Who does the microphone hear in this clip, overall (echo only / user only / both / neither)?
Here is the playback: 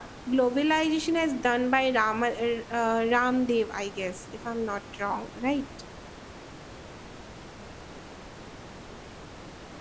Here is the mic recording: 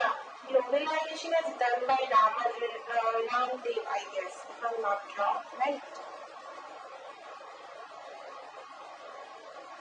echo only